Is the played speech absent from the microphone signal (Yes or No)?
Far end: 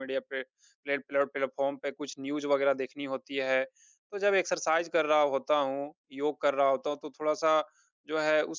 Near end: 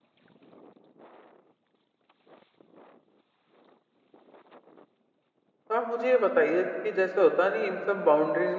Yes